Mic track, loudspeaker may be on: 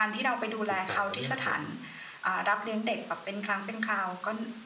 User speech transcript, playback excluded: ศึกษาเรื่องของ

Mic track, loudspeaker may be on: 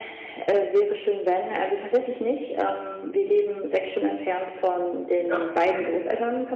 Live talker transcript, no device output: Ja. Mhm.

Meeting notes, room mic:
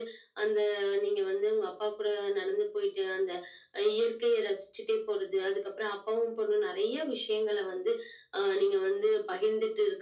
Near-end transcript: none

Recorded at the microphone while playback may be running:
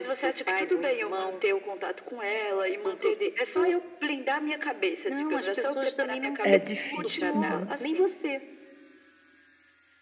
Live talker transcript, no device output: É difícil. Uhum,

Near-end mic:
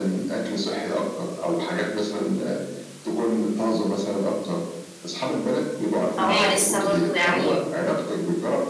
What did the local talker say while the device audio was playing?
فهُم لسه برضه يعني

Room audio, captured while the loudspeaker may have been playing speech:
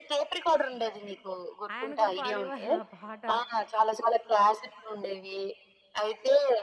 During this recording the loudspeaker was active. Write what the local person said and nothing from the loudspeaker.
ఆయన కూడా పాడేవాళ్ళు ఆ పాట.

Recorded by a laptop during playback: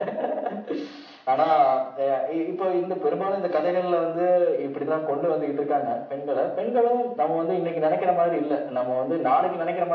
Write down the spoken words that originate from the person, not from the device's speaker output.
none

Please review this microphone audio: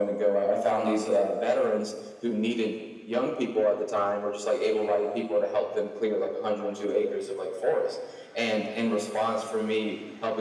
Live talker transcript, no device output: none

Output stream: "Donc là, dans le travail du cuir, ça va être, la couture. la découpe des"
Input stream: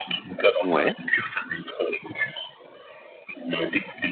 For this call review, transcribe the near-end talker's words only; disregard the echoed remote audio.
Ouais,

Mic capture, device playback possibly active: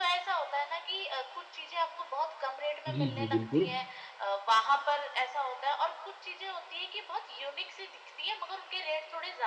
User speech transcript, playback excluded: जी जी बिल्कुल

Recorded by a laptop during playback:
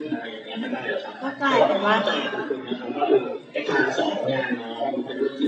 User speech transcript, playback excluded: ก็กลายเป็นว่า

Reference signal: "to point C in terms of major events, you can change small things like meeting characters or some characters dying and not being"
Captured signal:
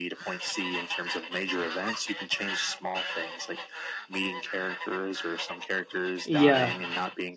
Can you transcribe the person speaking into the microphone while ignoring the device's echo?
yeah,

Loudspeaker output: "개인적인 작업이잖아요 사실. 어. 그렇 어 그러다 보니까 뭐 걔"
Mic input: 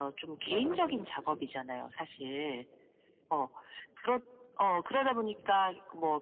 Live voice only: 네네. 무

